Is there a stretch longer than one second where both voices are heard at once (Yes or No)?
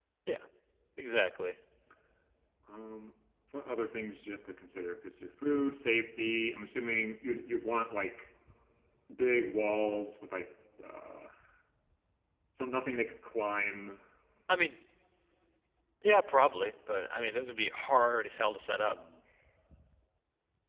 No